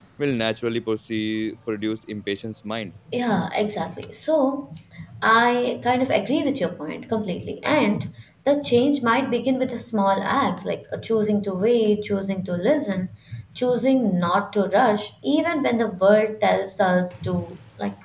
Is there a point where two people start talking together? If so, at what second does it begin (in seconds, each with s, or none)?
none